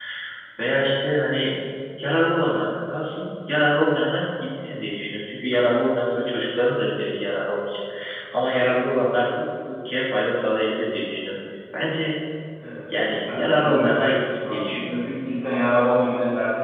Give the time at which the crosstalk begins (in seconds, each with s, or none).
12.9 s